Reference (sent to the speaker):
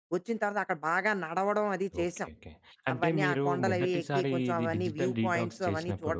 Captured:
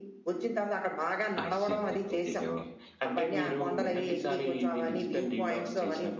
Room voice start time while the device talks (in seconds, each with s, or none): 1.4 s